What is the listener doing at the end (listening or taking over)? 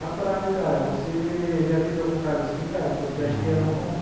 listening